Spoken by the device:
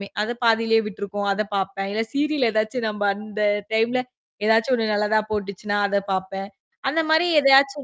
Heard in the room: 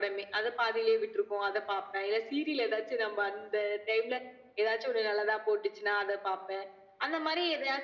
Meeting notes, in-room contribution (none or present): none